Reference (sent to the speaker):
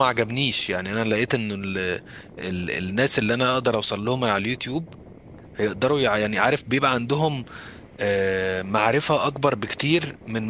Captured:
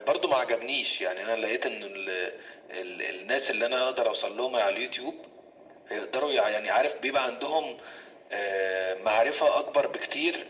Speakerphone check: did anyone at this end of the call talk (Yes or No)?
No